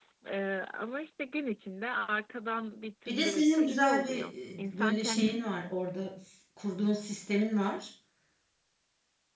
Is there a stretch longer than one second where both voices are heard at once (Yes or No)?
Yes